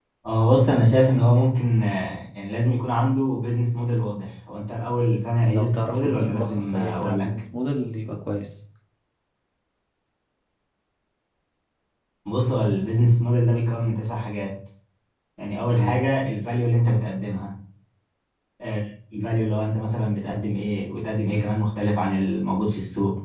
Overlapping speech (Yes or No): Yes